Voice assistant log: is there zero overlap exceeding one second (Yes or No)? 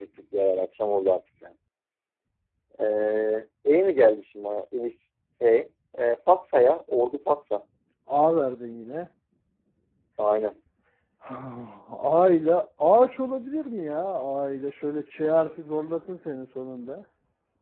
Yes